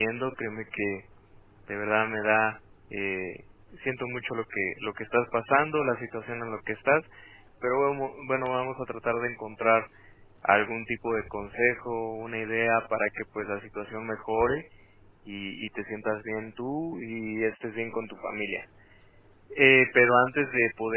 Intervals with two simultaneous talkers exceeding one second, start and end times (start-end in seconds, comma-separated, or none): none